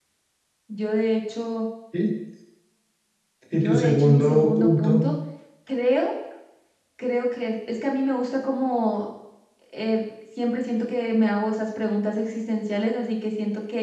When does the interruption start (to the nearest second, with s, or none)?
4 s